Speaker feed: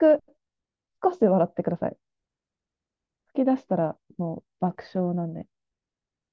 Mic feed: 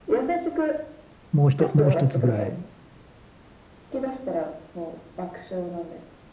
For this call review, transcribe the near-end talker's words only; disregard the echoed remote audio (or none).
もう一、もう一つぐらい